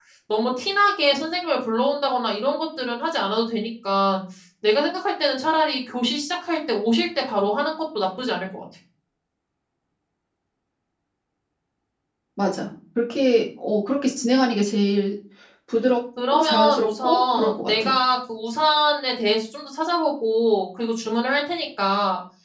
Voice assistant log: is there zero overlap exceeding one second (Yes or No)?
No